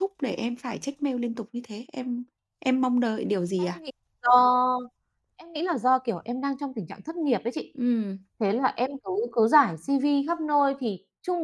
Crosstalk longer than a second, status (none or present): none